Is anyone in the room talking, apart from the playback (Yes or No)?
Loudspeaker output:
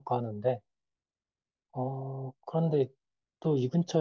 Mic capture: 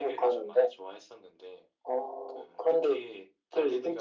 Yes